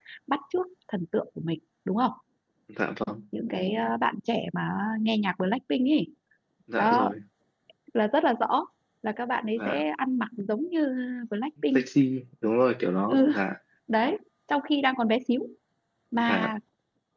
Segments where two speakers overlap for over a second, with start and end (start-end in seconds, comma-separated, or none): none